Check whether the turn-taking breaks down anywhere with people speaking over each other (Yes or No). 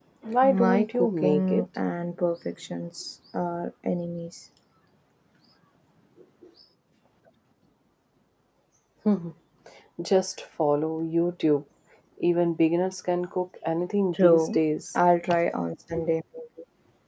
Yes